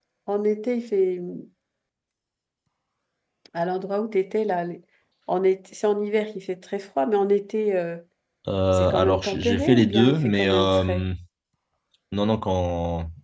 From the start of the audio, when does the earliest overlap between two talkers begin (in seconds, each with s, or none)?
8.7 s